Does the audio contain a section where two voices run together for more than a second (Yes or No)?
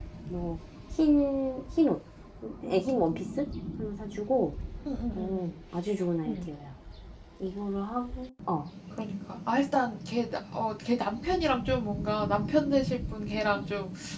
No